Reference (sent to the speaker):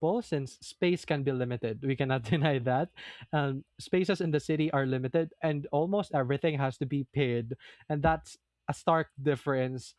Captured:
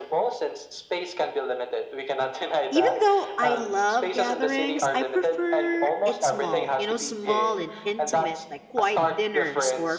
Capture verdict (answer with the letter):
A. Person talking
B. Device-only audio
A